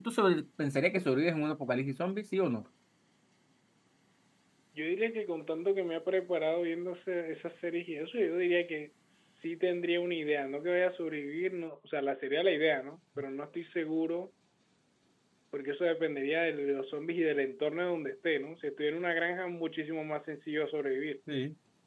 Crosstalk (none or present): none